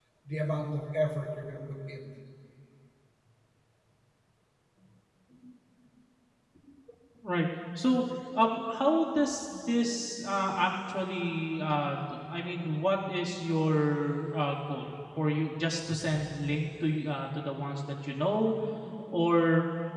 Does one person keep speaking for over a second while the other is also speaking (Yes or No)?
No